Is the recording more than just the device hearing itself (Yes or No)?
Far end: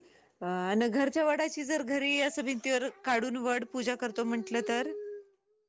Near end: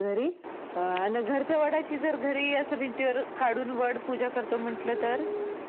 No